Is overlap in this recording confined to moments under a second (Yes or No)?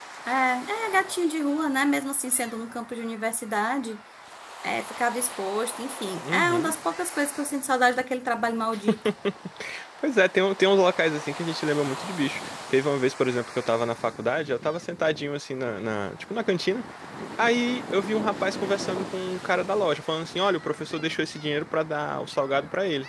Yes